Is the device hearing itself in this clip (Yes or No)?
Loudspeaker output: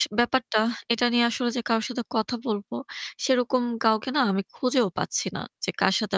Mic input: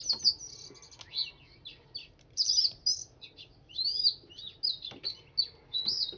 No